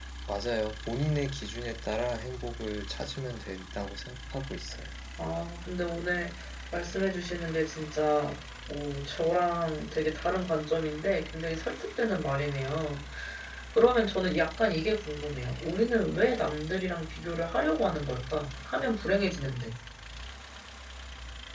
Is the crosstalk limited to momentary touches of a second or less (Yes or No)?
Yes